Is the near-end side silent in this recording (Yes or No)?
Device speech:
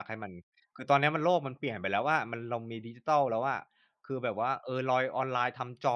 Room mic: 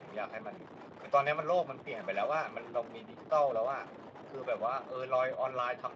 Yes